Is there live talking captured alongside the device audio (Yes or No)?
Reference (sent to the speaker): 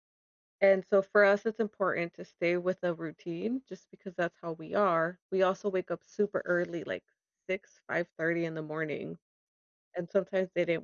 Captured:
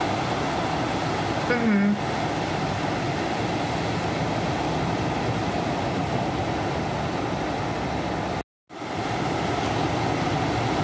Yes